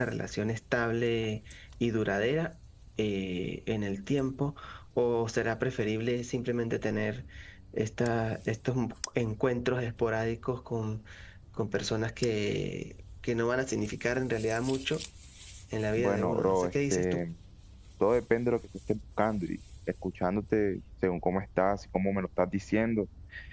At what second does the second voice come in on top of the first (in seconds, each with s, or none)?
16.0 s